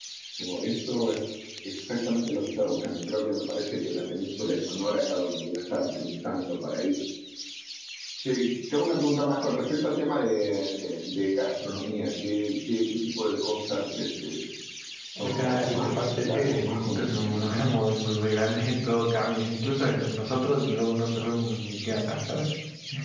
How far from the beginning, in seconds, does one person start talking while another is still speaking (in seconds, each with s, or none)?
15.2 s